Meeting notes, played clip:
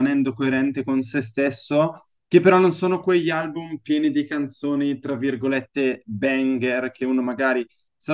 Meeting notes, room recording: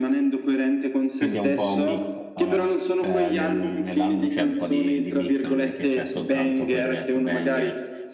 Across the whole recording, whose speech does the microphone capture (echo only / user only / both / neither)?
both